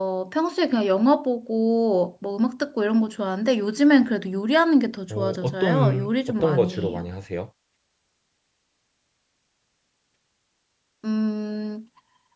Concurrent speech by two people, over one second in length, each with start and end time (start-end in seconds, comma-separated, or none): 5.1-7.0